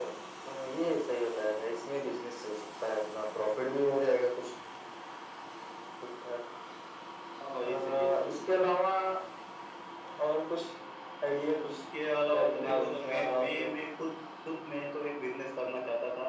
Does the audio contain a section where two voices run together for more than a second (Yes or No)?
Yes